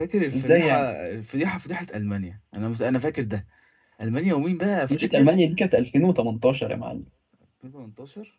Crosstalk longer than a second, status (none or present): none